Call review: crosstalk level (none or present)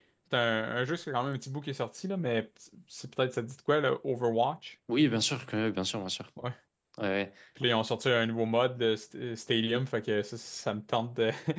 none